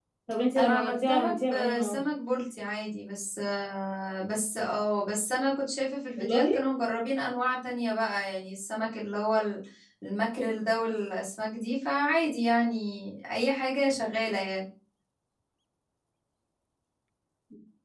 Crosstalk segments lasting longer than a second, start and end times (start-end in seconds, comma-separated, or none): 0.6-2.0